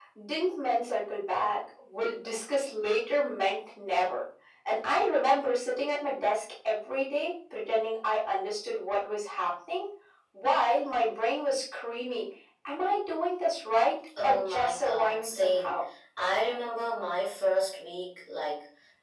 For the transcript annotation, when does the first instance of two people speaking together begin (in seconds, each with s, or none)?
14.2 s